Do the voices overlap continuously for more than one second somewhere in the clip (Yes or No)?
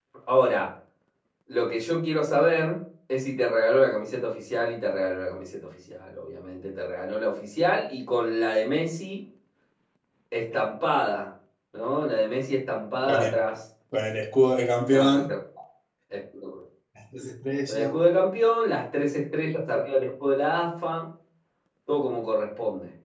No